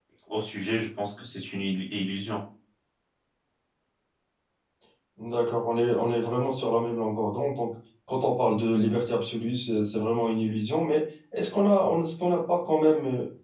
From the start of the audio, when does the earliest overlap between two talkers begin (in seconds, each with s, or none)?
none